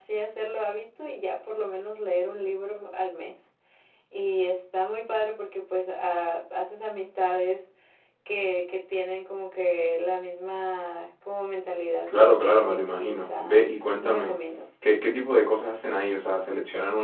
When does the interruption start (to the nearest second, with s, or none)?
12 s